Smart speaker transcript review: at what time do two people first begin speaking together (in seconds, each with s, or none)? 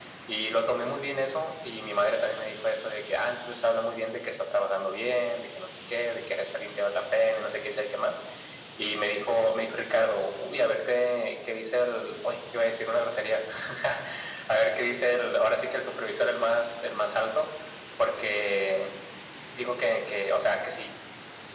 none